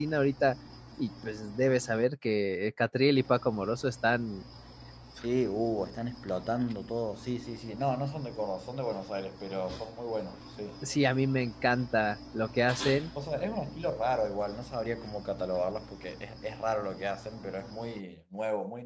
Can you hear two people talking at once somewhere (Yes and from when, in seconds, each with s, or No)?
No